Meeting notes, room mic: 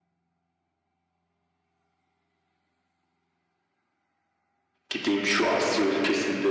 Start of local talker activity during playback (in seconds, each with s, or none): 4.9 s